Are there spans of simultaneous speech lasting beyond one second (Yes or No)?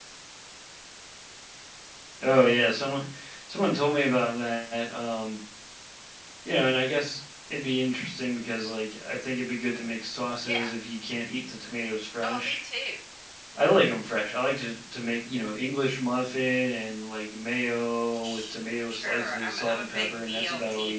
Yes